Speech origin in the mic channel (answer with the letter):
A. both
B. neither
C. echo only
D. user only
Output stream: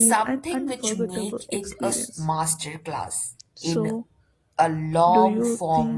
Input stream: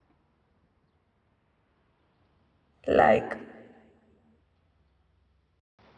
D